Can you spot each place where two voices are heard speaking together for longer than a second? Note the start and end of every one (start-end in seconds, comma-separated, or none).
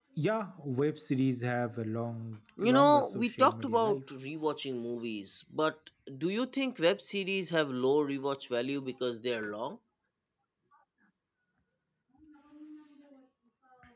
2.6-4.0